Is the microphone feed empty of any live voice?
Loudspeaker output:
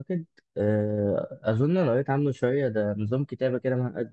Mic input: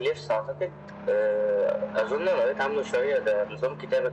Yes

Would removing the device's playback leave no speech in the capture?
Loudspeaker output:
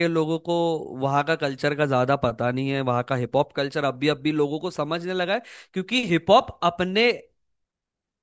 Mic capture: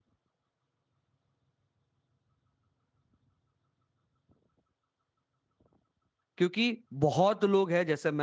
No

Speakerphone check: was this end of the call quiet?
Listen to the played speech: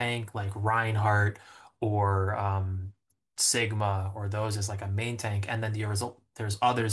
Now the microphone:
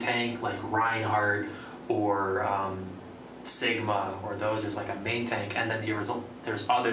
Yes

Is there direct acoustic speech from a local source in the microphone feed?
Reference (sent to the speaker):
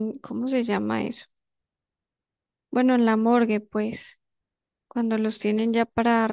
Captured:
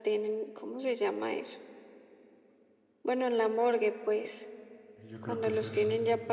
Yes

